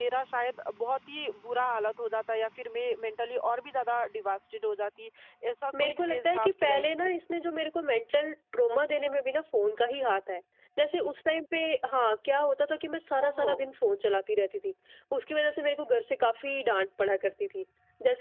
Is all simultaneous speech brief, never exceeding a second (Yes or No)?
No